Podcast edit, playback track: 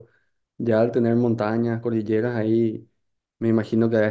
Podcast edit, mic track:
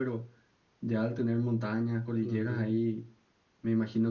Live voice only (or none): Ujú.